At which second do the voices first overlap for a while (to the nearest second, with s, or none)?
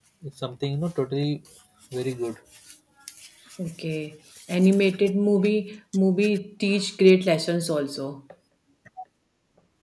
none